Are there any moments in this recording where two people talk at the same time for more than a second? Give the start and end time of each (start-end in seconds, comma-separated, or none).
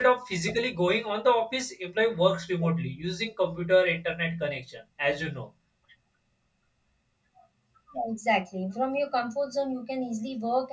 none